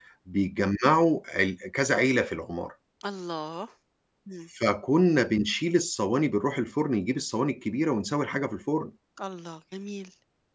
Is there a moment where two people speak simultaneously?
No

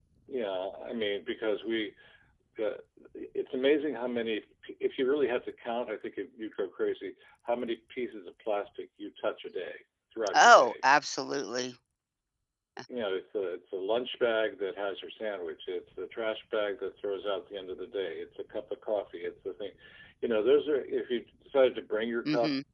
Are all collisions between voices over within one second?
Yes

